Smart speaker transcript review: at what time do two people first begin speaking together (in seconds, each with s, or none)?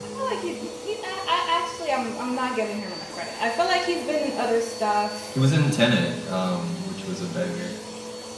none